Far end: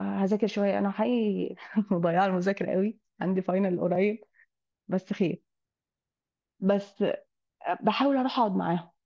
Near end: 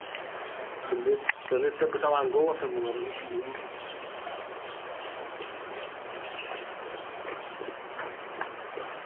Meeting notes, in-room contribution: present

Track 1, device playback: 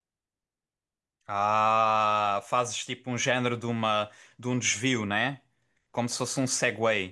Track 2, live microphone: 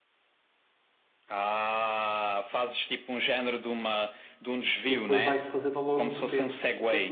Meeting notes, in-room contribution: present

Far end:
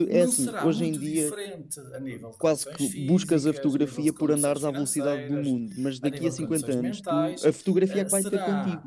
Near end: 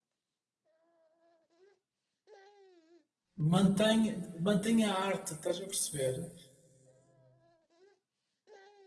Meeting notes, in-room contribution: present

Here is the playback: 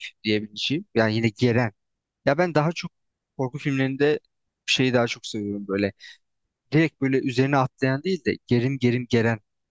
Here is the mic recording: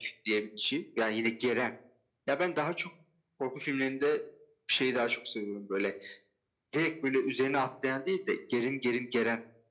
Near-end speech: none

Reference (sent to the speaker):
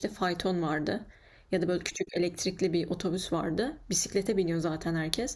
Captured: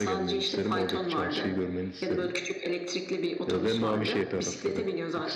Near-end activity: present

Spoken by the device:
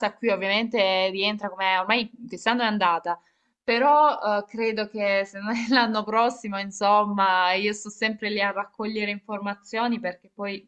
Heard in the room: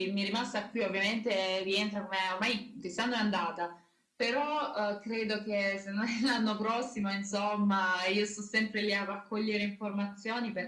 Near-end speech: none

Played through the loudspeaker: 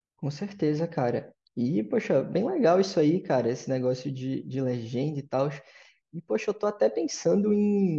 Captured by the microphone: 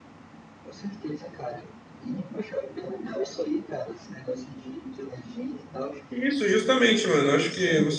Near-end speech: present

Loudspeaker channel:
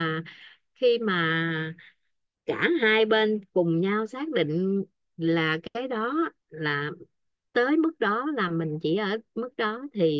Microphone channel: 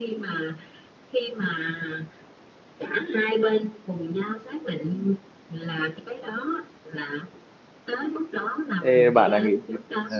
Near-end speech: present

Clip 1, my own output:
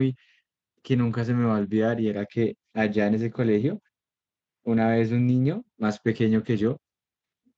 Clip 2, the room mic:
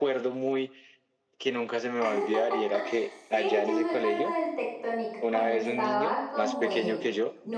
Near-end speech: present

